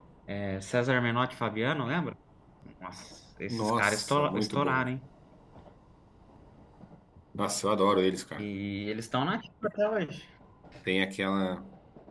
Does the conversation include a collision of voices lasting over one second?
Yes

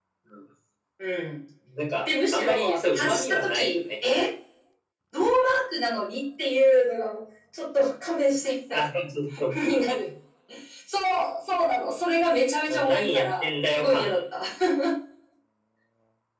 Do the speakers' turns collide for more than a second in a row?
Yes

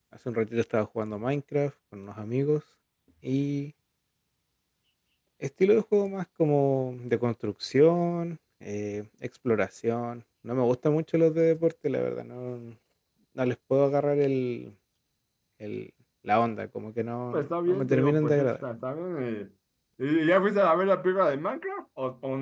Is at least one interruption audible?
Yes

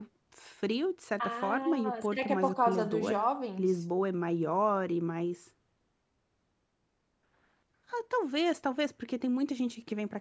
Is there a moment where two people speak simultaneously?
Yes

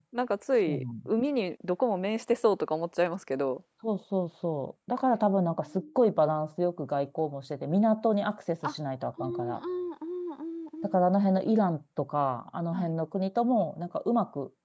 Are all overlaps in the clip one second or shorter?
Yes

